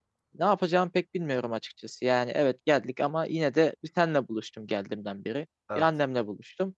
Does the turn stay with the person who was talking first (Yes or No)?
Yes